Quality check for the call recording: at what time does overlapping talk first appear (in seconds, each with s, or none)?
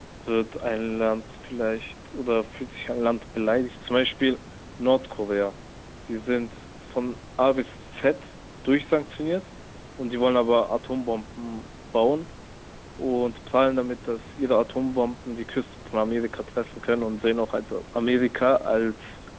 none